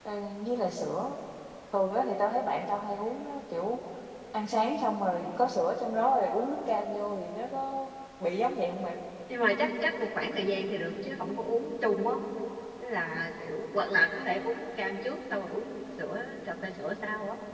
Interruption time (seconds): none

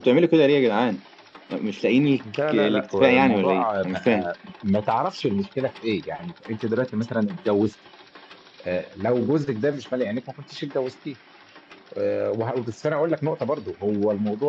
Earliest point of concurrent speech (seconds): 2.5 s

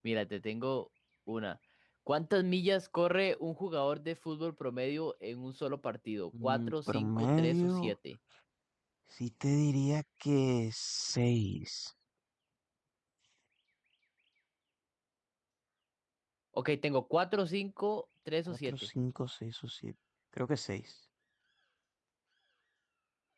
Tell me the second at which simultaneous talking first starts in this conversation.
6.4 s

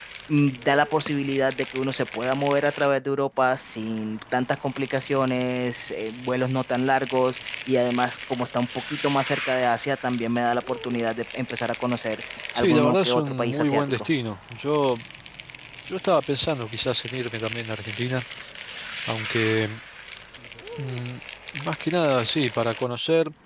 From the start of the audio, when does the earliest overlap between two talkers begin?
12.6 s

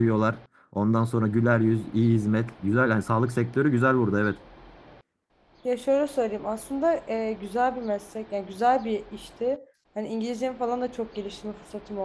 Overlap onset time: none

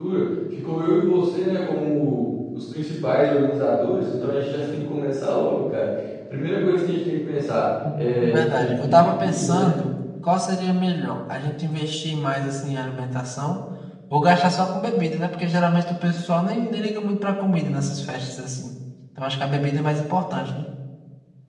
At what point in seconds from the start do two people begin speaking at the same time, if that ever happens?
7.8 s

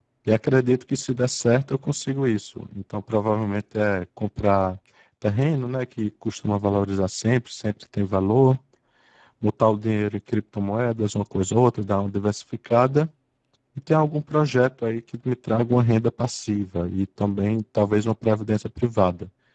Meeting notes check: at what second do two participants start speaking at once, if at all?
none

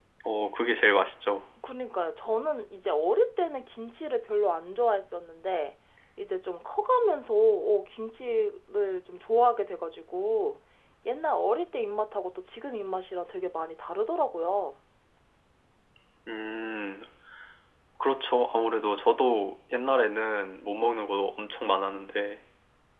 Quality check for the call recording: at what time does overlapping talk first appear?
none

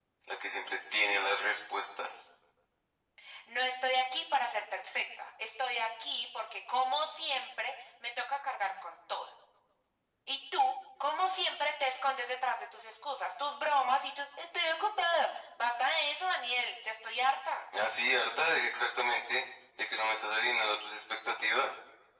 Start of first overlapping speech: none

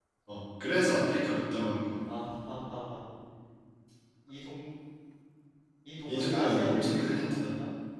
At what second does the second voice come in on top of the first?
6.1 s

